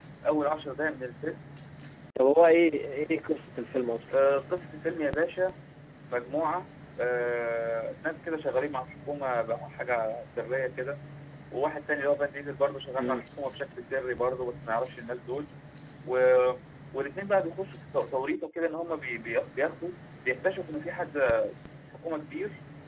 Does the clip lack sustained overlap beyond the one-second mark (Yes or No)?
Yes